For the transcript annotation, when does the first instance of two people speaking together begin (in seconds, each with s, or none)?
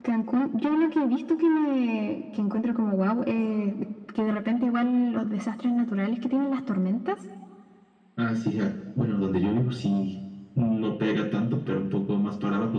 none